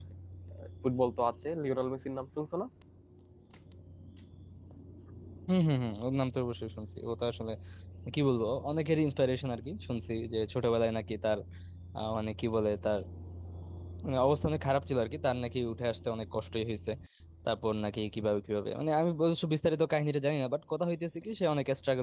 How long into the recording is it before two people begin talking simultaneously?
none

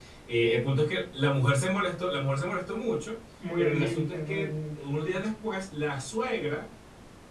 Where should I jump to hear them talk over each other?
3 s

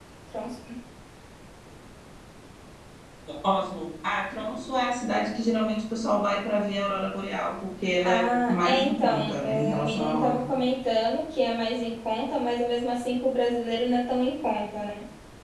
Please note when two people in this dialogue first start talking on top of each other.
8 s

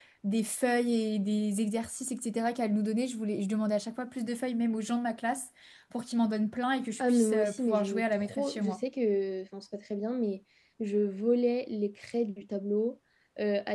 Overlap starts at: 7 s

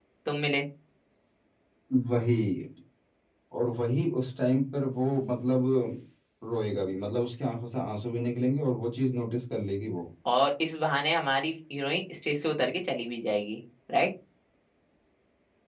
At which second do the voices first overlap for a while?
none

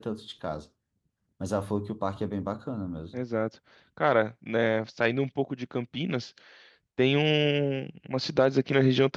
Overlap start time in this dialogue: none

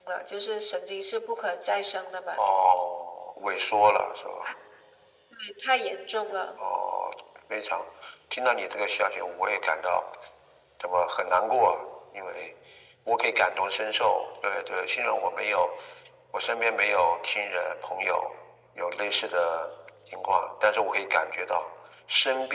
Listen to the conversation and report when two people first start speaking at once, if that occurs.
none

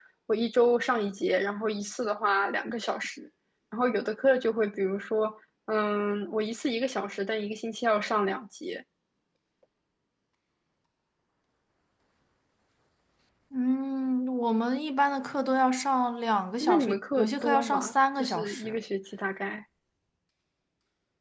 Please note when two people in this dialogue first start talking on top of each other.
17 s

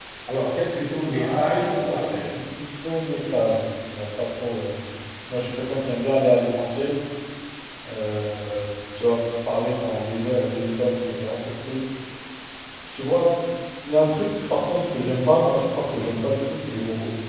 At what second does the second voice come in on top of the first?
1 s

